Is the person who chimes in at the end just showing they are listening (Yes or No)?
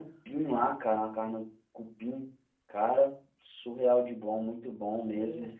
No